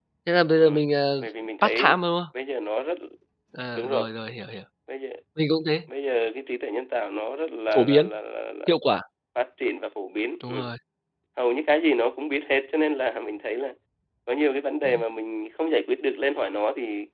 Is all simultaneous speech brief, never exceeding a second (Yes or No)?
Yes